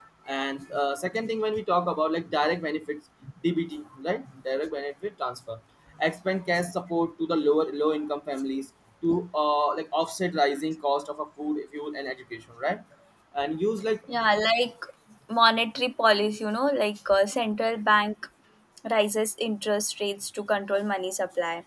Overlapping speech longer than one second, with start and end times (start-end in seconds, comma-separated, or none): none